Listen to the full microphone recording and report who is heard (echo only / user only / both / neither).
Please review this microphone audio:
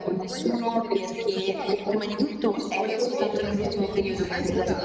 both